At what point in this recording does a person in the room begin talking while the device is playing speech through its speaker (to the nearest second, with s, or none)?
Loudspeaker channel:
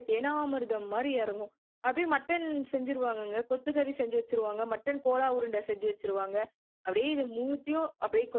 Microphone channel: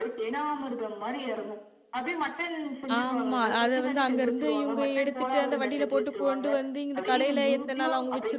3 s